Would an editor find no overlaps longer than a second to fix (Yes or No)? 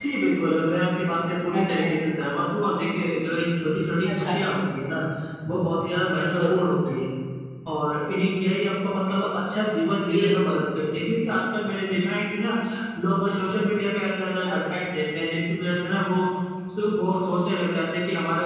Yes